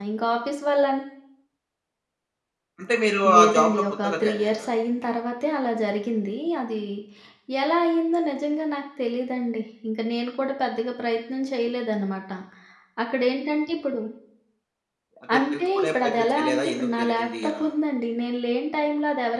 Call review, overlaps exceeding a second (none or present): present